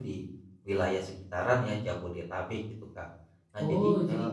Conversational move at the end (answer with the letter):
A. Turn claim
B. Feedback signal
A